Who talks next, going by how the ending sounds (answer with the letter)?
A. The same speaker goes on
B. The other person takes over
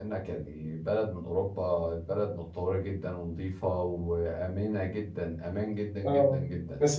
B